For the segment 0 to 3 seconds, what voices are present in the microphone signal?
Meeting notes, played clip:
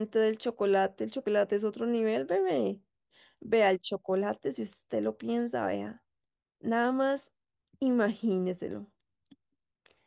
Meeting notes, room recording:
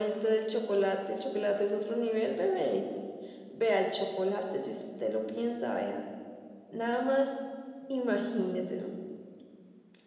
echo only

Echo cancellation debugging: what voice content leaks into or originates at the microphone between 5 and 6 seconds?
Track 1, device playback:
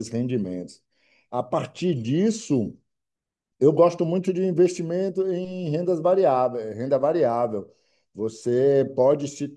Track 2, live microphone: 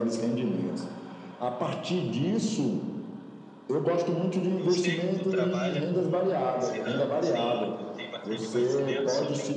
both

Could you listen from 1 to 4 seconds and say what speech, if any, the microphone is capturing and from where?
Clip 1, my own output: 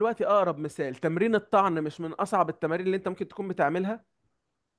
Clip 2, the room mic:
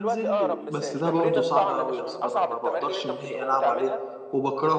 both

